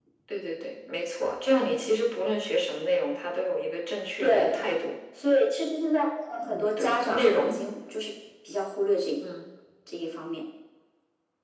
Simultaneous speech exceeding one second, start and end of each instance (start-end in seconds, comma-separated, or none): 6.4-7.6